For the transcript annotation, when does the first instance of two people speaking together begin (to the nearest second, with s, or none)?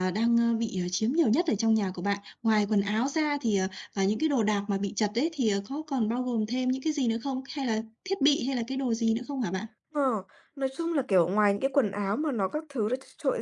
none